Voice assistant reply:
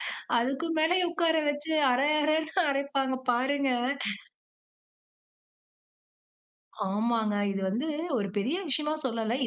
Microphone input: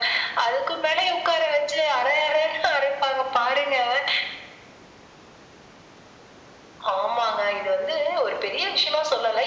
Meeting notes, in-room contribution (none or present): none